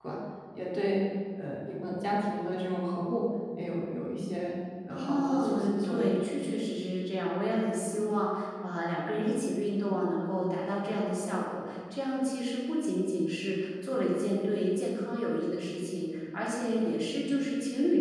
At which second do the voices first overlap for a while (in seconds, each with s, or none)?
4.9 s